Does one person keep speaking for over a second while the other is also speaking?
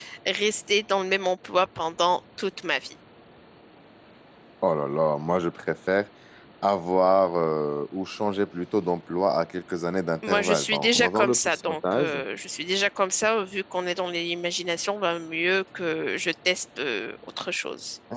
Yes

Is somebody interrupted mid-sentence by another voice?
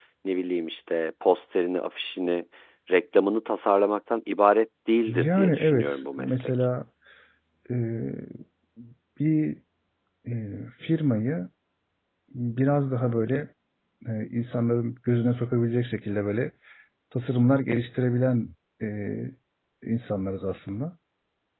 Yes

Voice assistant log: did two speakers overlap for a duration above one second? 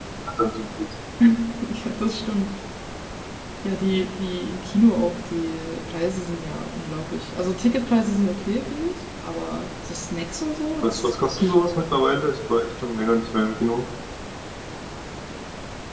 No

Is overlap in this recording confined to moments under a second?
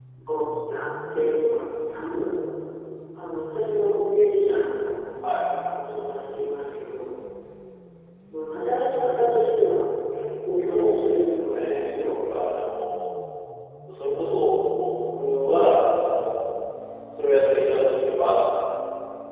No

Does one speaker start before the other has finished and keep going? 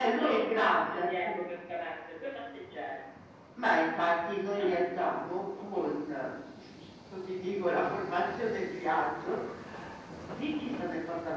Yes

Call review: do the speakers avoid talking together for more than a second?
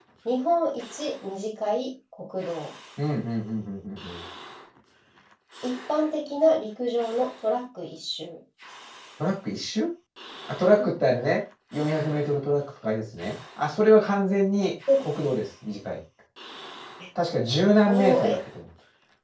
Yes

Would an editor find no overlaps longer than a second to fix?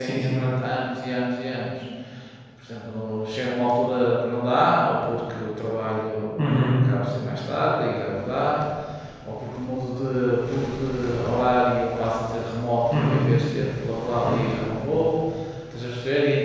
Yes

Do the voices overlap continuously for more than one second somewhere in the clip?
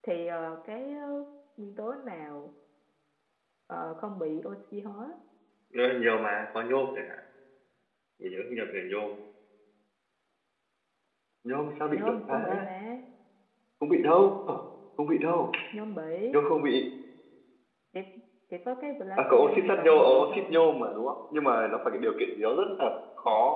Yes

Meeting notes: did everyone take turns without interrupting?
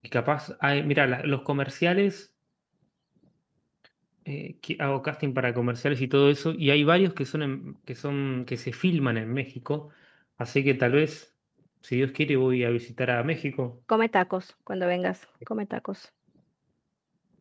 Yes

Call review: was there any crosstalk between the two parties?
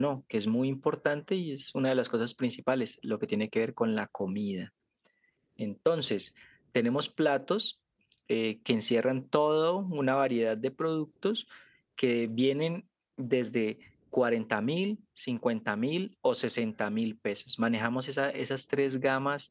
No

